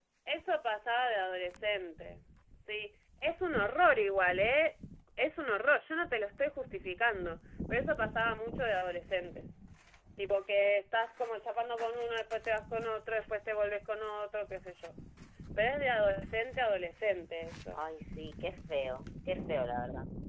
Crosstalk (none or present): none